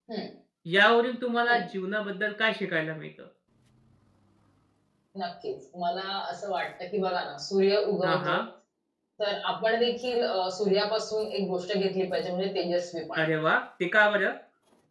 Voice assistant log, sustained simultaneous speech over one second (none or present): none